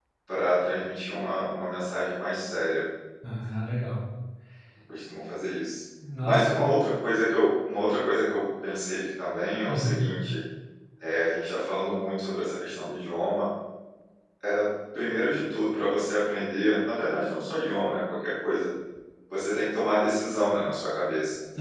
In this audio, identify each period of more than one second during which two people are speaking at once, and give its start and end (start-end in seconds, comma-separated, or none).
none